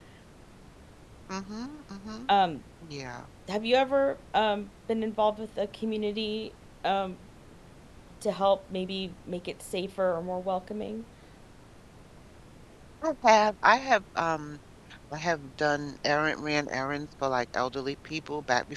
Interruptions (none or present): none